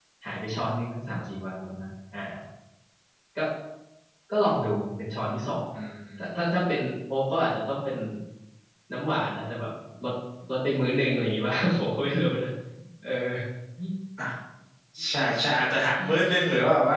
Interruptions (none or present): none